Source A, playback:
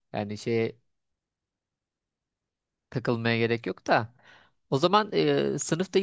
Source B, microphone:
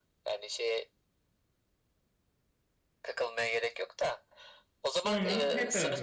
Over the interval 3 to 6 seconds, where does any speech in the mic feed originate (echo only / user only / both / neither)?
both